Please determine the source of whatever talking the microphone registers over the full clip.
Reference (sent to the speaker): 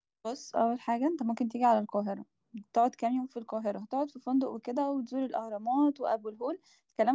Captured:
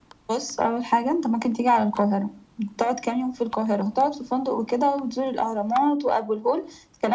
echo only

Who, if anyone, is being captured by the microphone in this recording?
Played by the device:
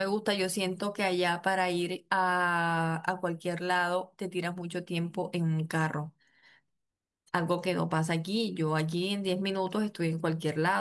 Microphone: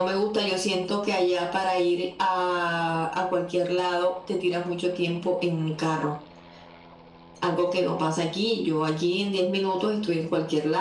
echo only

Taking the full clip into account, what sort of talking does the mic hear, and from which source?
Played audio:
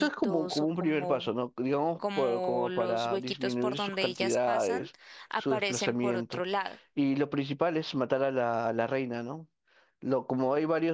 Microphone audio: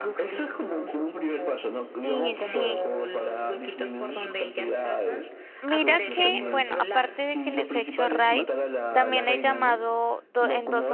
both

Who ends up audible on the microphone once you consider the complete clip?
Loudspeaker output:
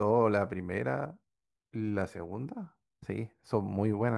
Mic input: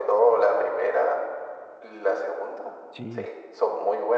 both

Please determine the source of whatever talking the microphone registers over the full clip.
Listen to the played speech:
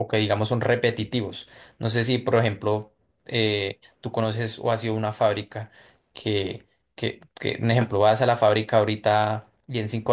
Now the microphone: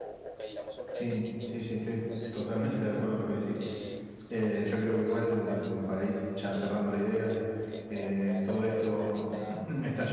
both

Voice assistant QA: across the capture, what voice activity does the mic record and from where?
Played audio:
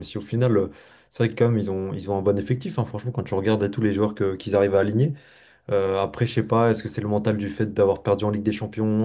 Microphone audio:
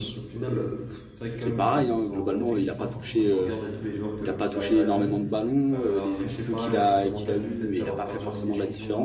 both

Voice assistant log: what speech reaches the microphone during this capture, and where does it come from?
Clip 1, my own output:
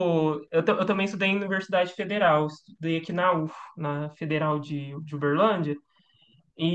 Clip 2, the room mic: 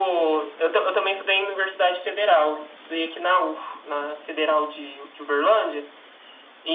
echo only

